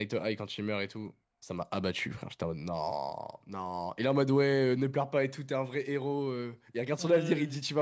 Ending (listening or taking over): listening